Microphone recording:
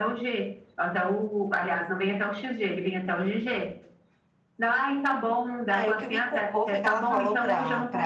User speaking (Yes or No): Yes